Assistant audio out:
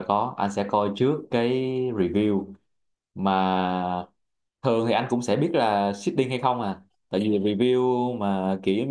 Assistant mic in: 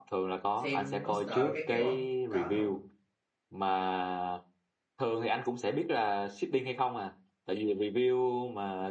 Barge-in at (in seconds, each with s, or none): 0.5 s